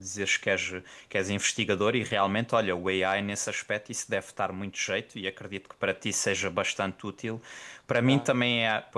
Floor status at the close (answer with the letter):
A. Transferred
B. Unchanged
B